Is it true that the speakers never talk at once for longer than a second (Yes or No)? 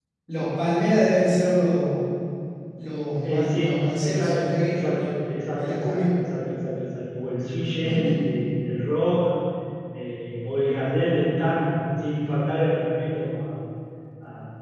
No